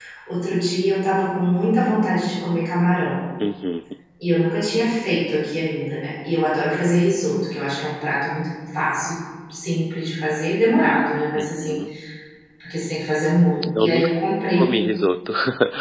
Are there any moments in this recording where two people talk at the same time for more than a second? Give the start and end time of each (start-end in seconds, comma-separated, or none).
none